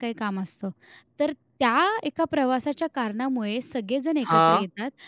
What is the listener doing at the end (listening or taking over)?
listening